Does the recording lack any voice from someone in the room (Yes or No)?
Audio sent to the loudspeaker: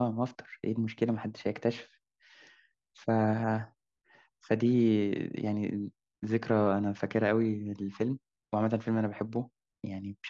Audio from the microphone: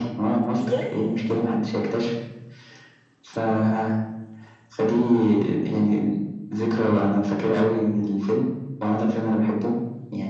No